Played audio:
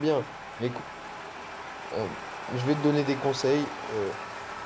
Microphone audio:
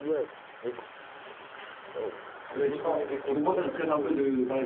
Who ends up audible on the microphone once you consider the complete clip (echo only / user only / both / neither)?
both